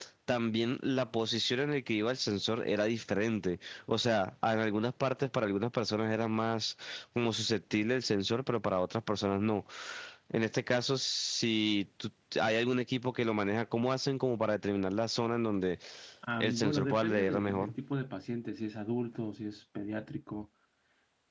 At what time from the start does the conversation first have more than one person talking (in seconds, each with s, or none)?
16.4 s